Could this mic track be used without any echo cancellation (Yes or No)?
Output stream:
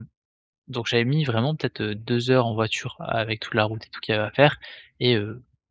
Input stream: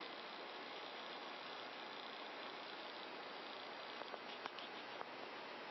Yes